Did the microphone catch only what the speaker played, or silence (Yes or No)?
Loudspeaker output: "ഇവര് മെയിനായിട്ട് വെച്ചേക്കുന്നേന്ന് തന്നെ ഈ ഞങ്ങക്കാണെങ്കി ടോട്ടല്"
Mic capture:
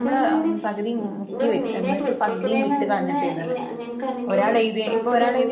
No